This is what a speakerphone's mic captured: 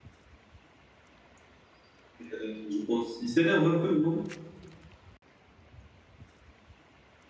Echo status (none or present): none